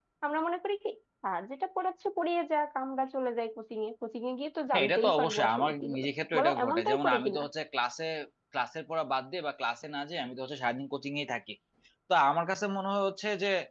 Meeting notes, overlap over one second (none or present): present